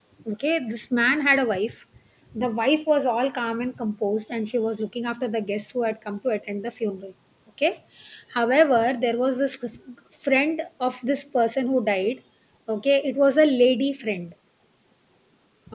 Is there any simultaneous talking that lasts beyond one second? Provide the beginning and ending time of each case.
none

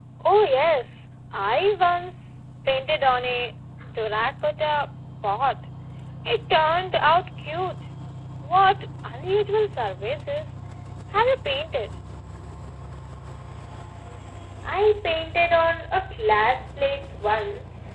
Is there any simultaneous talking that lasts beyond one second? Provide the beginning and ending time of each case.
none

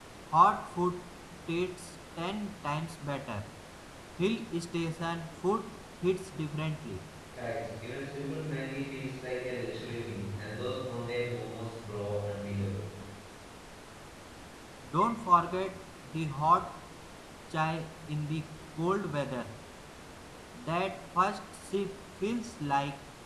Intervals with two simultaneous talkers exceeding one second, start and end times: none

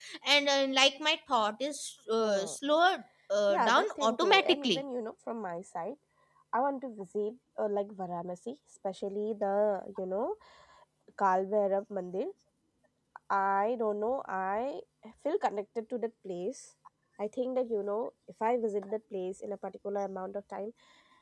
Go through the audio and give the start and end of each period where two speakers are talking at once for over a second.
3.5-4.8

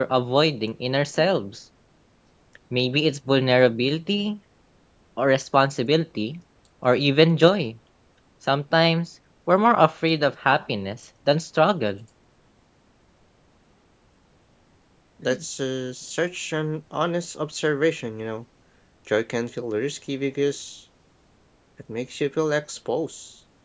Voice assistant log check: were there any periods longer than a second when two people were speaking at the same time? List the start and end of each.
none

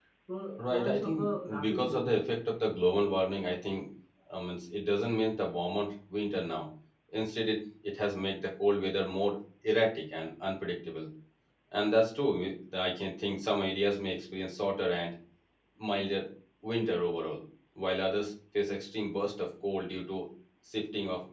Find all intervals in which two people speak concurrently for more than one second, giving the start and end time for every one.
0.6-2.1

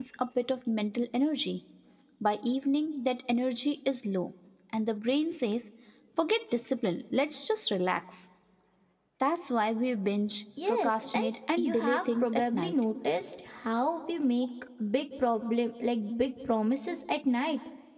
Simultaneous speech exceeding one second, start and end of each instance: 10.7-12.7

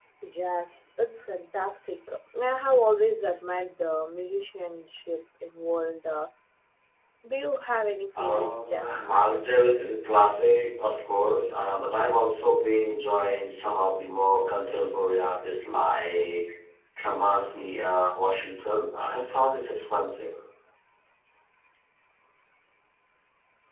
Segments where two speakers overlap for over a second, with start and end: 8.2-9.5

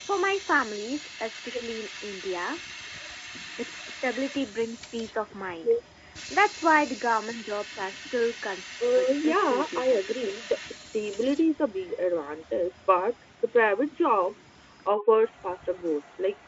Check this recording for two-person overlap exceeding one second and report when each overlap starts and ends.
8.9-10.2

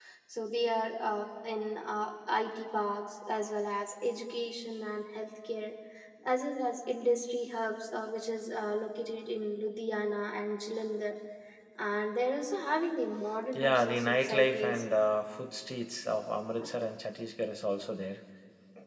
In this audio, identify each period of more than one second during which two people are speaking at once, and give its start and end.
13.5-14.8

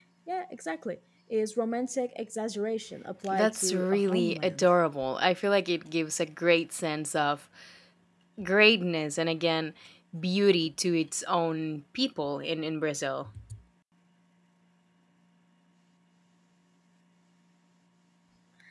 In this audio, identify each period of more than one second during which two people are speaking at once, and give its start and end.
3.3-4.7

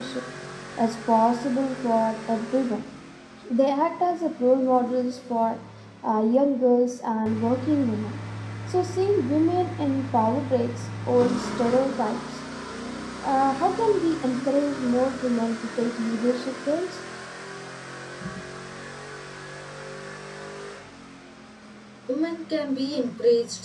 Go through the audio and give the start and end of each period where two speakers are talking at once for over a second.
none

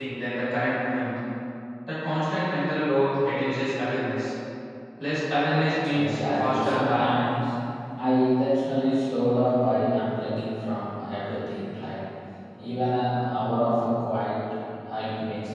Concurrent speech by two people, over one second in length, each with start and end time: 5.9-7.2

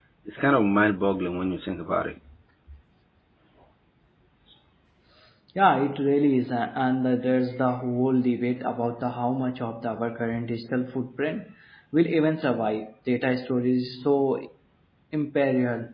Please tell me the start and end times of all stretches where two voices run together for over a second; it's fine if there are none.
none

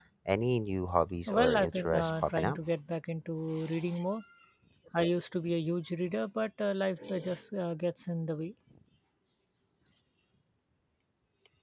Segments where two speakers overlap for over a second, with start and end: 1.3-2.6

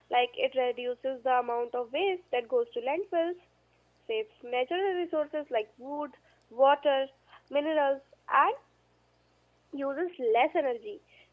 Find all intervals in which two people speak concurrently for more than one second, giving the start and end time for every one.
none

